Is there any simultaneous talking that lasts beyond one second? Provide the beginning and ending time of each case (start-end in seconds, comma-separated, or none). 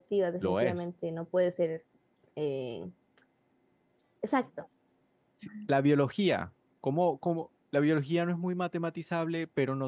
none